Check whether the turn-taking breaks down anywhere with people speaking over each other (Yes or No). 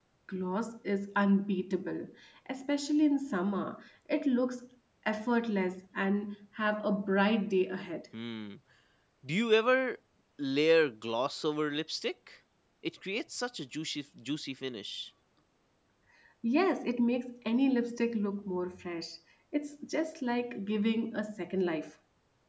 No